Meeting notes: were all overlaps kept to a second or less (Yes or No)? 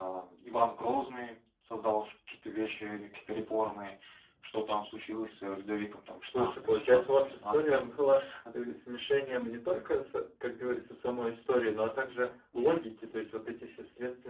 No